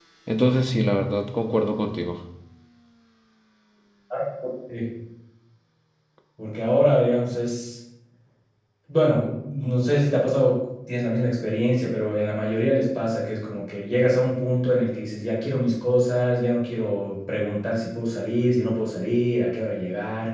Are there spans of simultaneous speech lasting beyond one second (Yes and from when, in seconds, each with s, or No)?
No